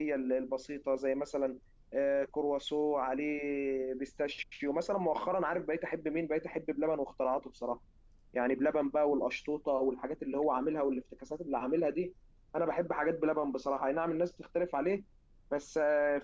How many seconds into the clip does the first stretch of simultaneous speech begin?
none

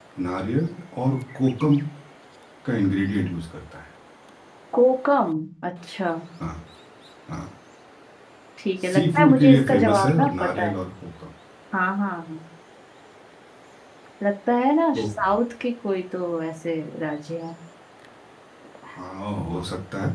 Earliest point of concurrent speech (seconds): 9 s

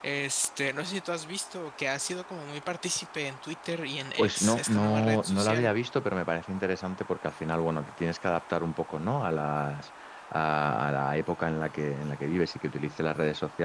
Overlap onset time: 4 s

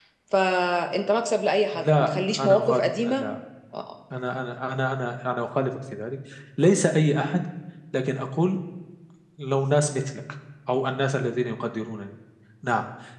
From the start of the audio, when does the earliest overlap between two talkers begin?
2 s

